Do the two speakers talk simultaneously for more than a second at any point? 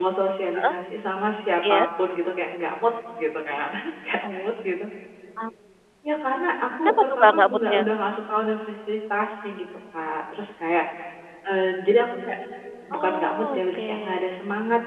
Yes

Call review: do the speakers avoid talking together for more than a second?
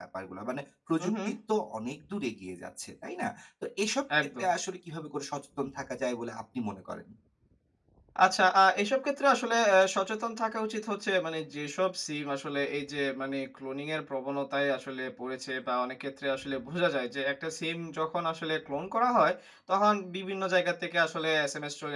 Yes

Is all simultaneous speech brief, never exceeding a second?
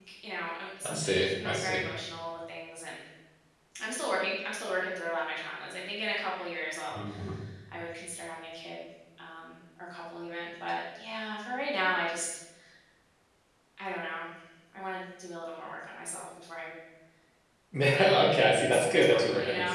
No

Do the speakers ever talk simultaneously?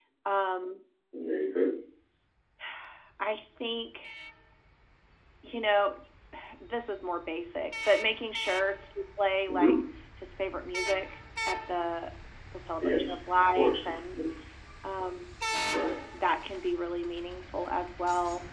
Yes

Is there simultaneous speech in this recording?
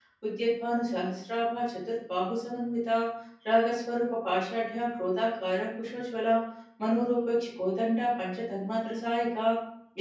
No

